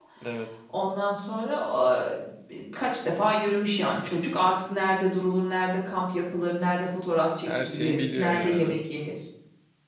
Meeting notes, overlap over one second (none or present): present